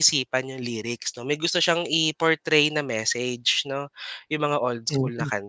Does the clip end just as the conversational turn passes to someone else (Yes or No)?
No